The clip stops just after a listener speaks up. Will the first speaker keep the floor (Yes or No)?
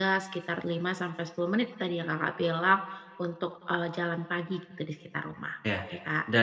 No